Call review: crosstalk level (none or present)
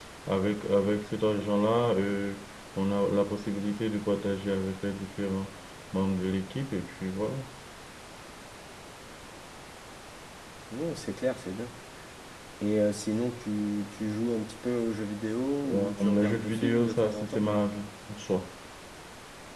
present